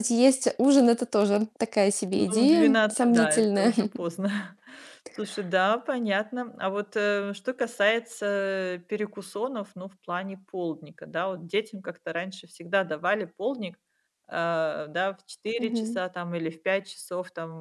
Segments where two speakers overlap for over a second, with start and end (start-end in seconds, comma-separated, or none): 2.1-3.7